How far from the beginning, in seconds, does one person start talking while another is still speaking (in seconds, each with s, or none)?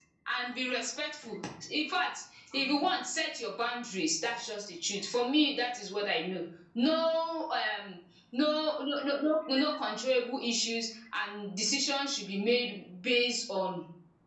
none